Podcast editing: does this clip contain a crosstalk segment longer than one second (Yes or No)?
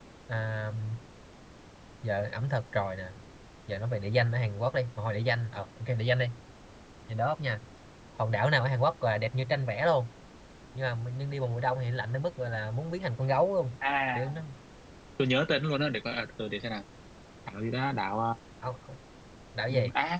No